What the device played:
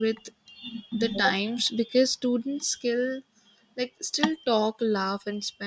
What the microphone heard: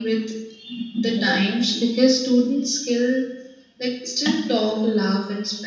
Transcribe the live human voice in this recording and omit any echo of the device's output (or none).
none